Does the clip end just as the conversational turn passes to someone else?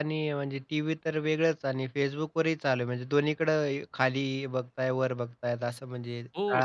Yes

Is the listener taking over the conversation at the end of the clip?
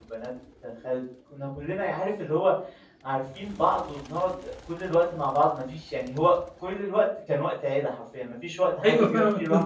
Yes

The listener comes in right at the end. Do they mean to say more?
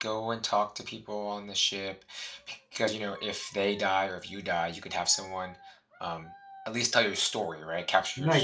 Yes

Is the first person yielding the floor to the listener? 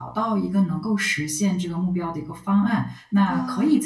No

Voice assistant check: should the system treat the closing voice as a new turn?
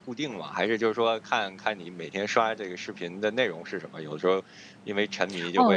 Yes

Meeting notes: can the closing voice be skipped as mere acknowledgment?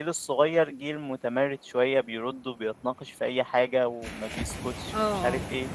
Yes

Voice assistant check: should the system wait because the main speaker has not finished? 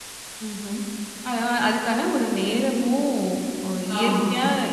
Yes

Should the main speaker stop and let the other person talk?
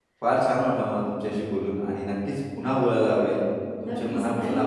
Yes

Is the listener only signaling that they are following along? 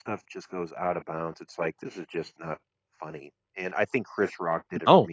Yes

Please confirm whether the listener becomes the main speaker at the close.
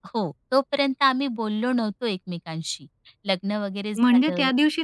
Yes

